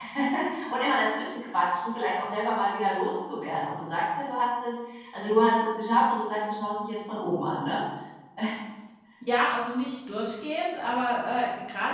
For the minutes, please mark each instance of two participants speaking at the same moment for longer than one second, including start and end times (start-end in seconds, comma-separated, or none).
none